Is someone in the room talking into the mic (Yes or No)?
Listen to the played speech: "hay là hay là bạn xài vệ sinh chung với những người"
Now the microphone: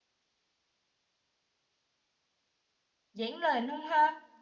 Yes